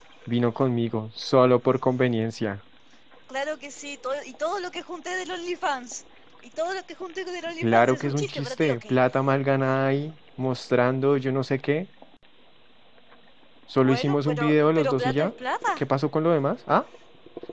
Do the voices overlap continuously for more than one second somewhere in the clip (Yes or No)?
Yes